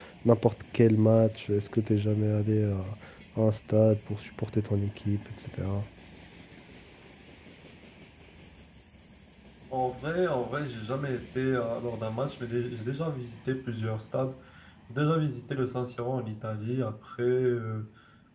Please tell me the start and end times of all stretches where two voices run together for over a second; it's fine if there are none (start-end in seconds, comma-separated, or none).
none